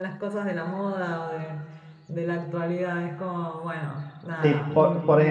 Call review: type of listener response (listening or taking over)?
taking over